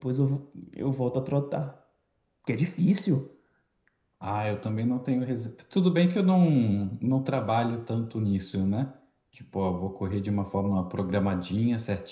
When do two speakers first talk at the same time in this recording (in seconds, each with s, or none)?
none